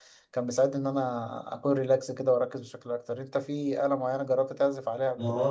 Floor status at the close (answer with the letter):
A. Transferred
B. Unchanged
A